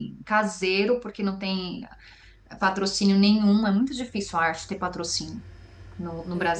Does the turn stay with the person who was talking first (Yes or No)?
Yes